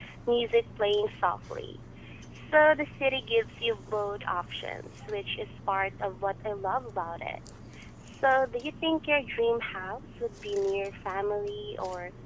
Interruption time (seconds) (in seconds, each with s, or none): none